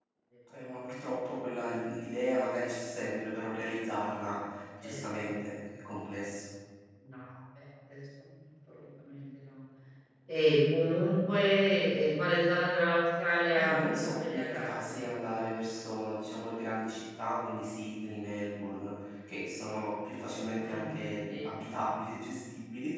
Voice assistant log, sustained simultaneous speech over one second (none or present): present